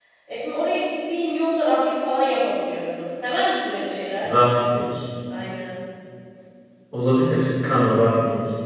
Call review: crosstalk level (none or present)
none